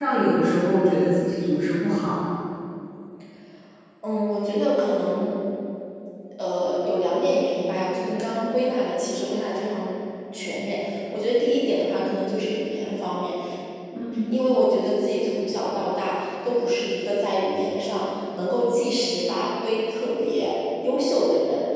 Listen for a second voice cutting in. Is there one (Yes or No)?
No